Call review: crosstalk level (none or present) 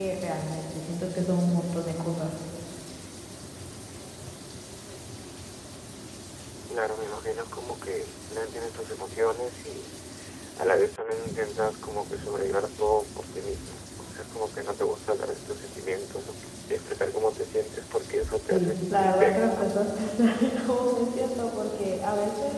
present